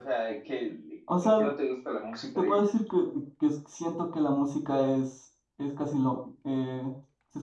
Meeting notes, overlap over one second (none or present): none